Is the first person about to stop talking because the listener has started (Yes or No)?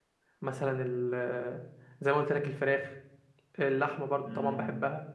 No